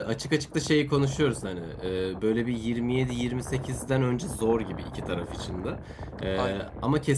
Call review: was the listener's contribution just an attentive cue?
Yes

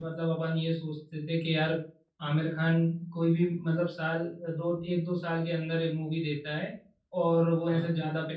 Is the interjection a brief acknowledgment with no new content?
Yes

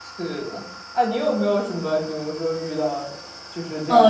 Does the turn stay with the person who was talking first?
No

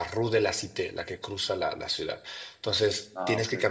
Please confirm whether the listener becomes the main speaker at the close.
No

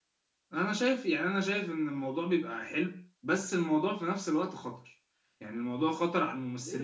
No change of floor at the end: No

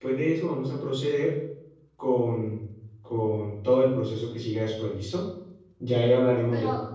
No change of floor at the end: Yes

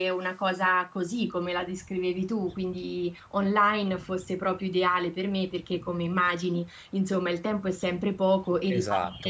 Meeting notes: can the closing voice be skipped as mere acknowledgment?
No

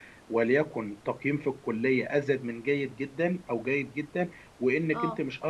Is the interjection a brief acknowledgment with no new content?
Yes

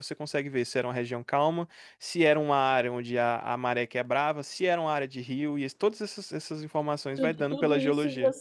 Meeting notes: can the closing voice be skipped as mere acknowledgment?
No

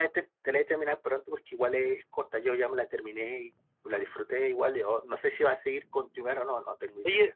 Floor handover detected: Yes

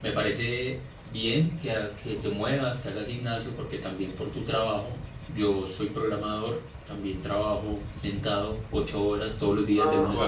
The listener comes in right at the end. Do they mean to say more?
Yes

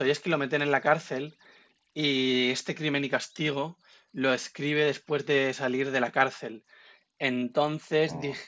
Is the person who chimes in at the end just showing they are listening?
Yes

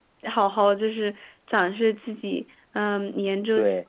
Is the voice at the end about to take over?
No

